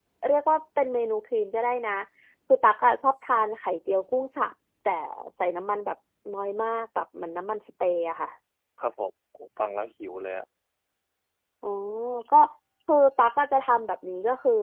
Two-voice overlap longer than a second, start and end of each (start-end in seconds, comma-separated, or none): none